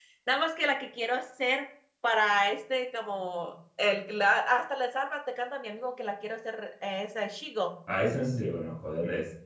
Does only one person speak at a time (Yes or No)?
Yes